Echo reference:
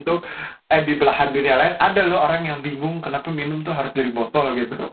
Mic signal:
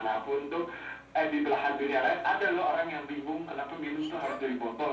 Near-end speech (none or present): present